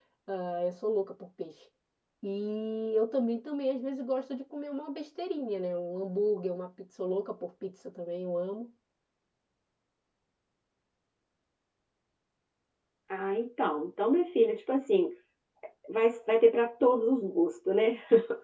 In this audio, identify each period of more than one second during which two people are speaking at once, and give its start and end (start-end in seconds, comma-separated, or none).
none